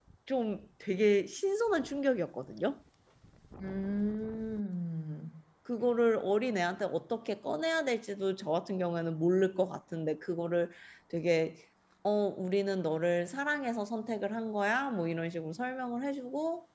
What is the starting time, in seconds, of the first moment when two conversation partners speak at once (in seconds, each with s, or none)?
none